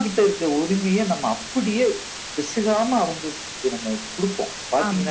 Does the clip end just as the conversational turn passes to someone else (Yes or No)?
Yes